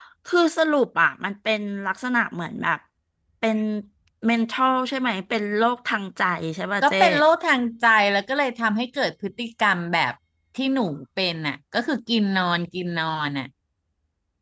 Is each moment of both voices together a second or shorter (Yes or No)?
Yes